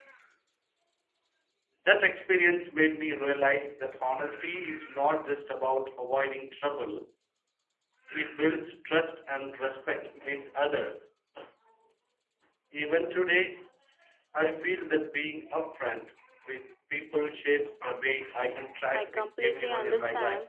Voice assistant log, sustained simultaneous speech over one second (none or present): present